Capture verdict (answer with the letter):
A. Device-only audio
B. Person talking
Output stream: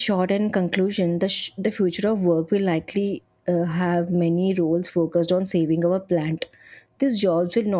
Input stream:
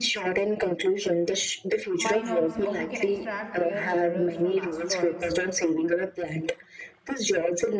B